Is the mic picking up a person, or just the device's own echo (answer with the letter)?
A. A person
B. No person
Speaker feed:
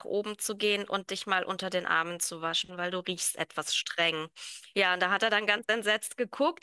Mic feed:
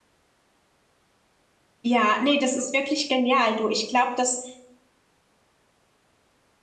A